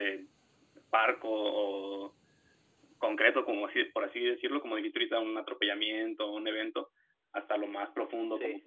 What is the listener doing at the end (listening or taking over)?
listening